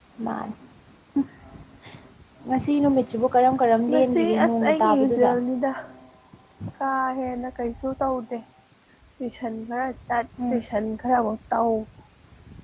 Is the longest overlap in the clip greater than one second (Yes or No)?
Yes